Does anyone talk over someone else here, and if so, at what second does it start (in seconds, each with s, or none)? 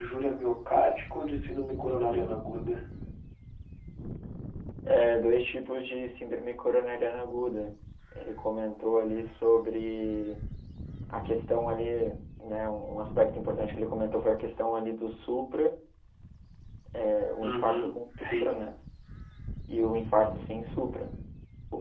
17.4 s